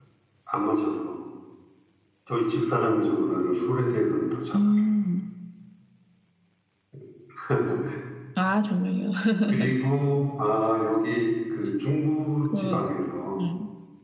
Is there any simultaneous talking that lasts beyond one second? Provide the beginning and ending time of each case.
none

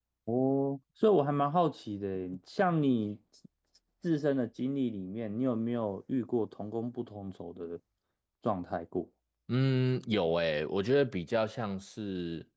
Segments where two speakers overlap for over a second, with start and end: none

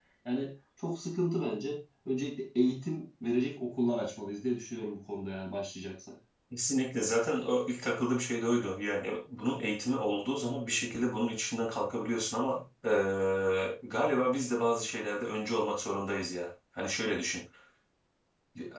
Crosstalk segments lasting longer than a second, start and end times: none

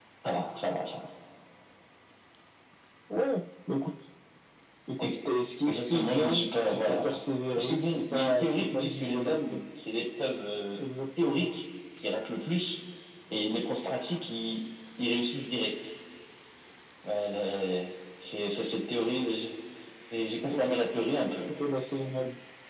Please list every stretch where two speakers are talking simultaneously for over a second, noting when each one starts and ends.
5.7-7.0, 7.6-9.6

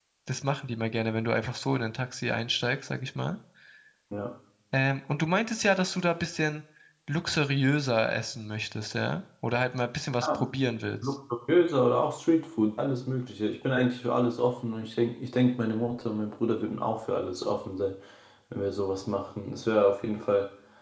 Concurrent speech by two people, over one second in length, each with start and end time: none

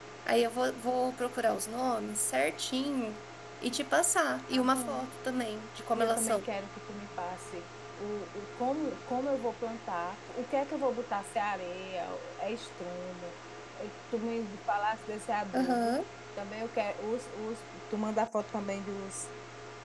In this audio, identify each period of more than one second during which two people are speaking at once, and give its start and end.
none

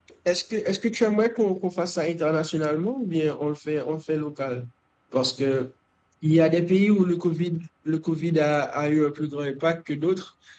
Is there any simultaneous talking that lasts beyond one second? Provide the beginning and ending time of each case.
none

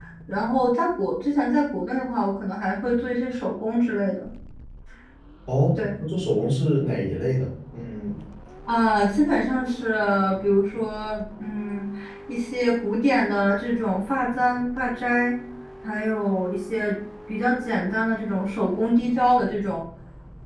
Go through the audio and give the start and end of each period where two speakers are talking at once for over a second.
none

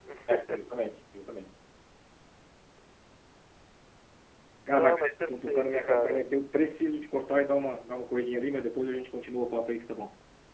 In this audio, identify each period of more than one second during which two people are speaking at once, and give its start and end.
4.7-6.3

